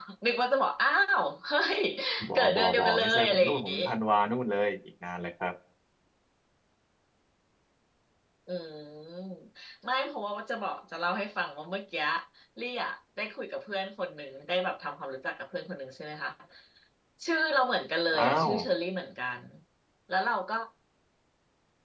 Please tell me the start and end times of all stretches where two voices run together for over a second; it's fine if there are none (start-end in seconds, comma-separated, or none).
2.4-3.8